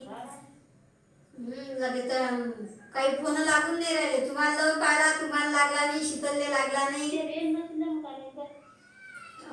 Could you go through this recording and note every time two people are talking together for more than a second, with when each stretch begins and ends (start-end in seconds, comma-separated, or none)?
none